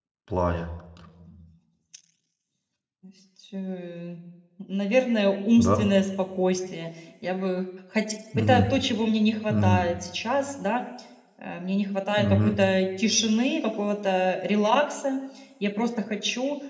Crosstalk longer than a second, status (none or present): none